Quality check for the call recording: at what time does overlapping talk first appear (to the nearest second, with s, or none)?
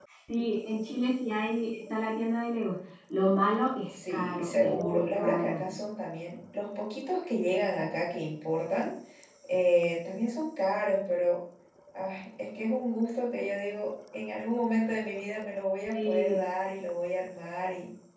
4 s